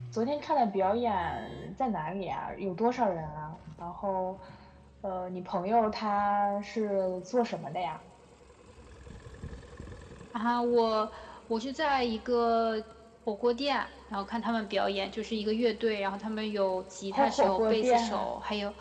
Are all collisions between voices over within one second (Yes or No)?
No